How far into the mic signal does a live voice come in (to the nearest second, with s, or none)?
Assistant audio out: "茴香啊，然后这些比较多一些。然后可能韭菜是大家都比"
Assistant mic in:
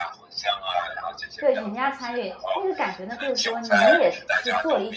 1 s